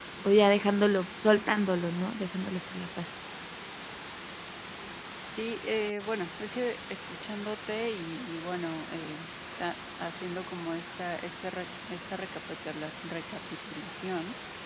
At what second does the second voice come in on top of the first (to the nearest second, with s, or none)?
none